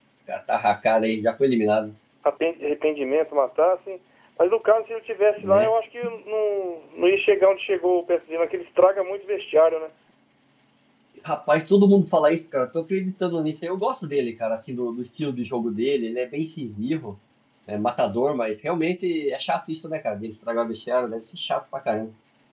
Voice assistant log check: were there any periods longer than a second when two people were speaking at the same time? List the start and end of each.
none

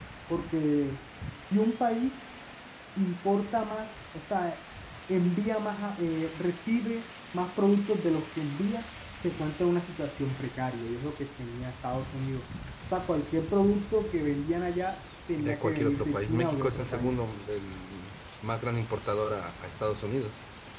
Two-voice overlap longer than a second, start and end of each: 15.4-17.2

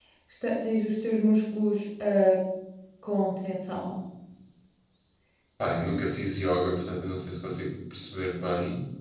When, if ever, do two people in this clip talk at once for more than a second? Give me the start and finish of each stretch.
none

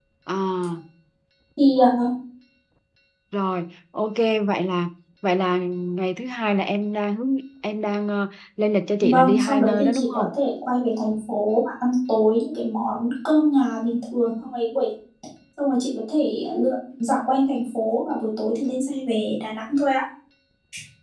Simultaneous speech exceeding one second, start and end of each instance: 9.0-10.2

